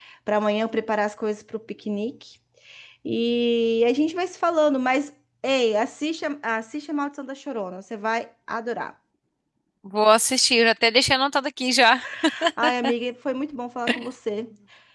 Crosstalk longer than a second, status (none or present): none